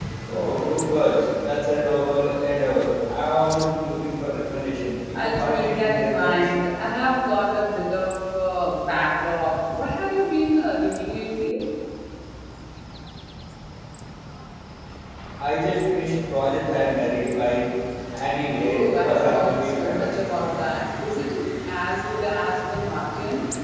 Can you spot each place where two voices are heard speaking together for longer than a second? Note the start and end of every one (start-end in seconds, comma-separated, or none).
5.1-6.5, 18.6-20.3